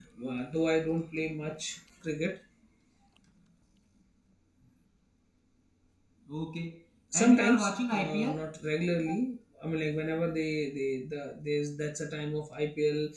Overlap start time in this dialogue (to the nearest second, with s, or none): 7 s